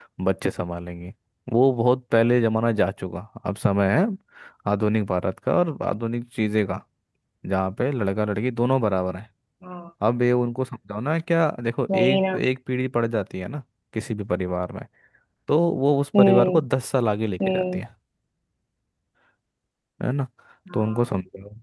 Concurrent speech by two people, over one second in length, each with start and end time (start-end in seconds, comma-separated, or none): none